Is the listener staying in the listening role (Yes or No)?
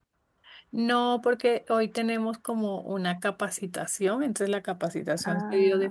Yes